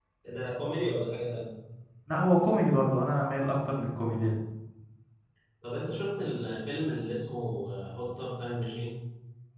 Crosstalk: none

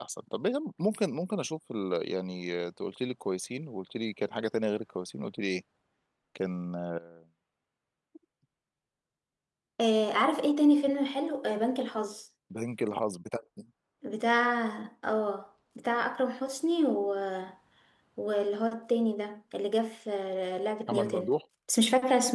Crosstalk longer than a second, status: none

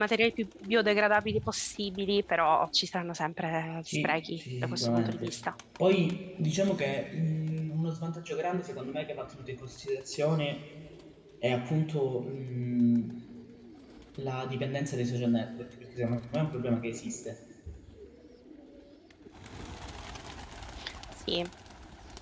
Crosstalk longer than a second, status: present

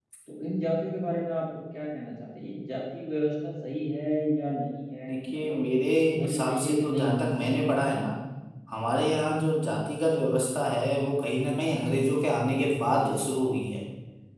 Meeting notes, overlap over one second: present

